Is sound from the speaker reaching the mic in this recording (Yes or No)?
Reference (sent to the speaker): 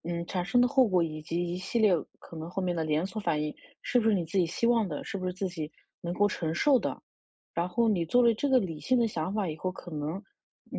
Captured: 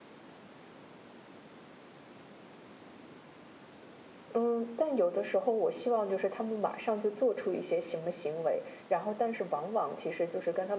No